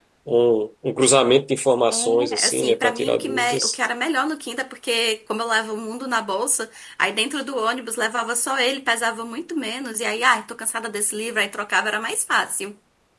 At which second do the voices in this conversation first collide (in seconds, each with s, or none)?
1.9 s